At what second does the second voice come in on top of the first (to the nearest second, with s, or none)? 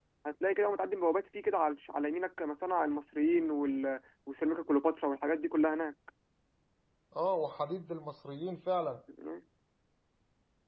none